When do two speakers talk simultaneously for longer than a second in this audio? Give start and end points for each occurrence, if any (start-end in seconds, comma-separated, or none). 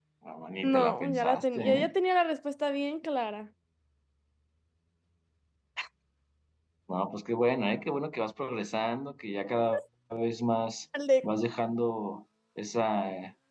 0.6-1.9